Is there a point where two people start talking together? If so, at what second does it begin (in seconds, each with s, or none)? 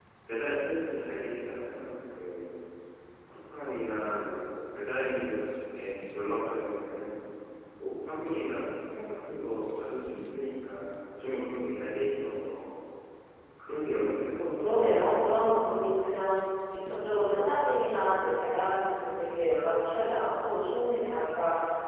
14.6 s